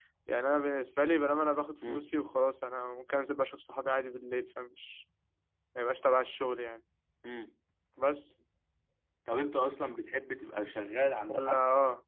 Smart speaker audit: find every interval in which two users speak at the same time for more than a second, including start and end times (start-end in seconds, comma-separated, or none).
none